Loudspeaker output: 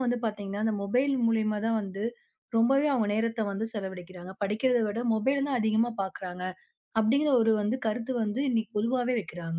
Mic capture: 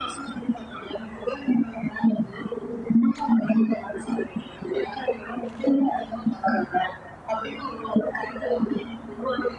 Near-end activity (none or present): none